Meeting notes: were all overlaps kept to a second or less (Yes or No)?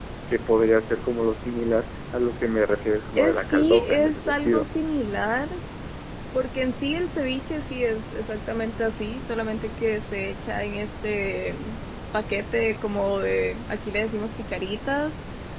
No